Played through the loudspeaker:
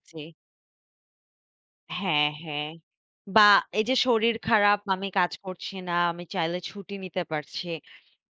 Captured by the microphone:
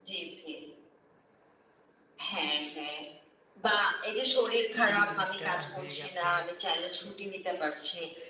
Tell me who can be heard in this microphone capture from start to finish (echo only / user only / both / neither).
both